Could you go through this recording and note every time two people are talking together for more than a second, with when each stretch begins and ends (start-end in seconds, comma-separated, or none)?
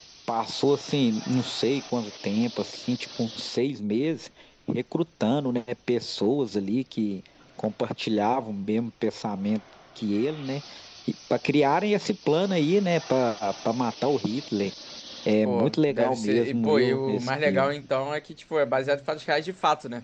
15.4-17.7